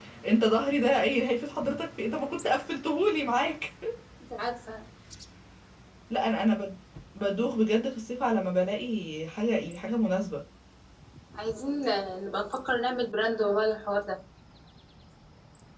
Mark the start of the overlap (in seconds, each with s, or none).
none